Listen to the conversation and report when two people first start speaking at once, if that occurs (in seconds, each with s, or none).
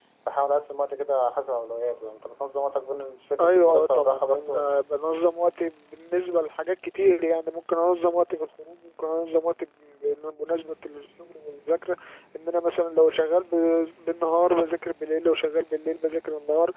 3.4 s